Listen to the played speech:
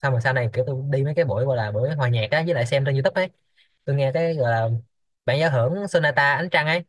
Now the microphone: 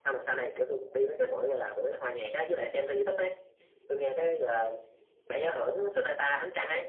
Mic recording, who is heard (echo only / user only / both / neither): echo only